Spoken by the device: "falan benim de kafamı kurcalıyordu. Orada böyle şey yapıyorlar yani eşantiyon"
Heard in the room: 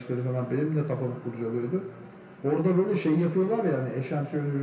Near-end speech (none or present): none